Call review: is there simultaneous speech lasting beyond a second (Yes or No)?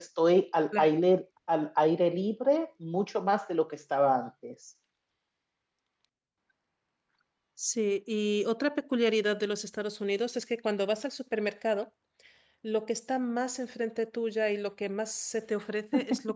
No